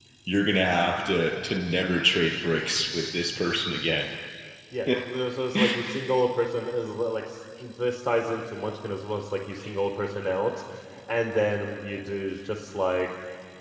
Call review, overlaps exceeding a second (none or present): none